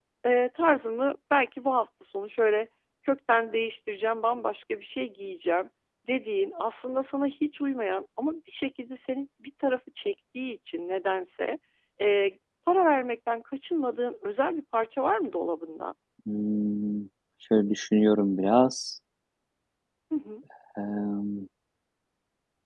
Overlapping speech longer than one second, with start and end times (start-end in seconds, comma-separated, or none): none